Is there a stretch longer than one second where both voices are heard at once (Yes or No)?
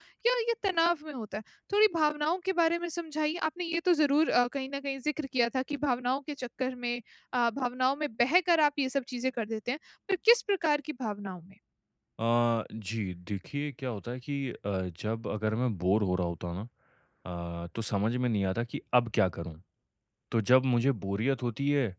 No